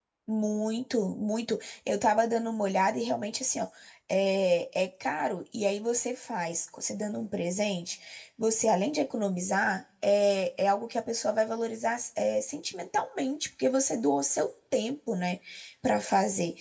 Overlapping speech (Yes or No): No